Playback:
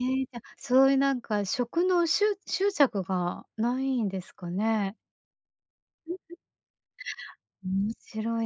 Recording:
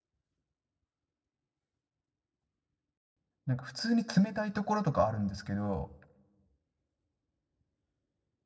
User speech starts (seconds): 3.5 s

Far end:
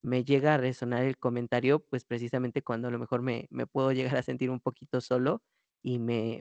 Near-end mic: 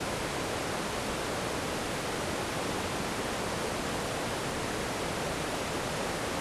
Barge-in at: none

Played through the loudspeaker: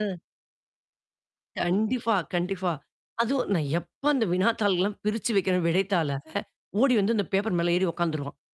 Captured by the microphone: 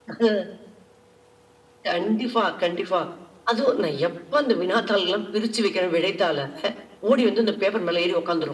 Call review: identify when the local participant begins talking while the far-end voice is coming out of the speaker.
none

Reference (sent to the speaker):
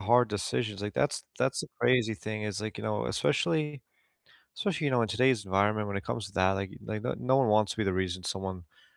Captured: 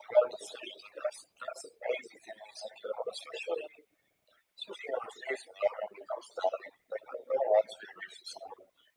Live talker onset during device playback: none

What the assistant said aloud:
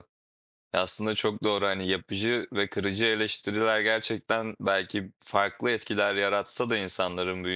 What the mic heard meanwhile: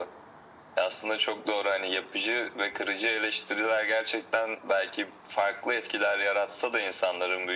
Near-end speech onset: none

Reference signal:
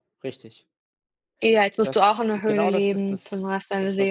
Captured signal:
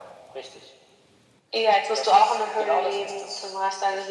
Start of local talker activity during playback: none

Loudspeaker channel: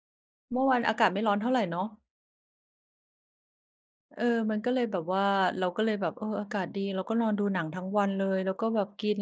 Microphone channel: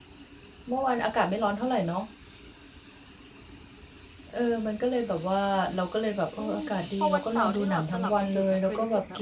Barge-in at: 6.4 s

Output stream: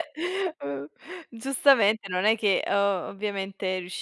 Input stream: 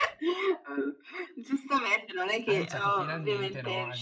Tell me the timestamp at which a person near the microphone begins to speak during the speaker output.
2.5 s

